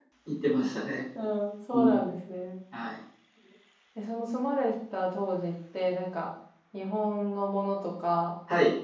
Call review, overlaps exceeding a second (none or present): none